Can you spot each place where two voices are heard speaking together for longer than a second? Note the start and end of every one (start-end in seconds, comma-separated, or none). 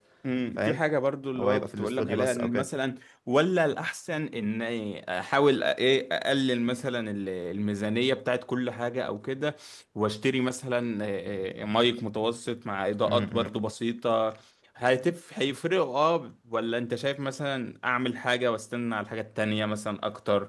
1.4-2.7